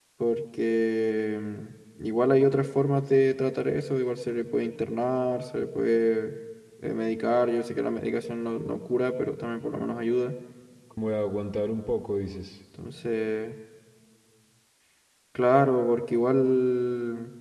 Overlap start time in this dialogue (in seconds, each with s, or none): none